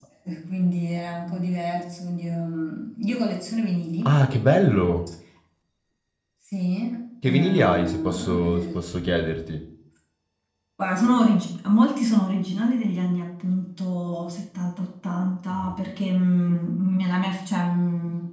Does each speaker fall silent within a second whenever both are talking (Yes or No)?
No